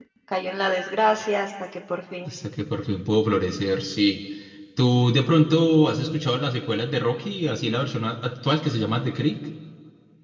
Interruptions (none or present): none